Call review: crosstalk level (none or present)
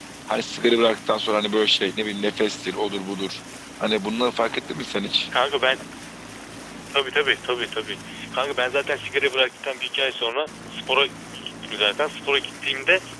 none